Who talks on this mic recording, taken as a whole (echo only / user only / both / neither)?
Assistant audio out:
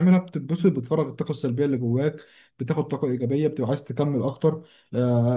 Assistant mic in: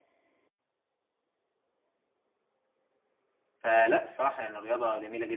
user only